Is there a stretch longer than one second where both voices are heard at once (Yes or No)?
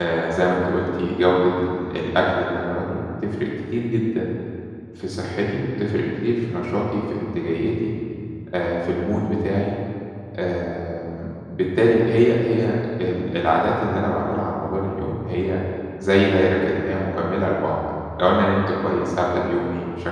No